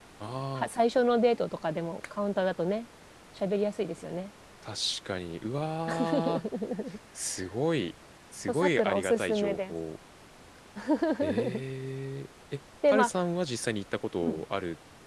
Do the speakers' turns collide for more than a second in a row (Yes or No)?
Yes